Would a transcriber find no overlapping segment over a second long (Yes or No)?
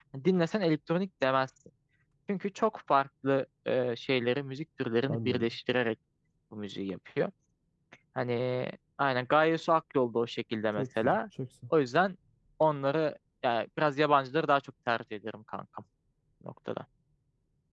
Yes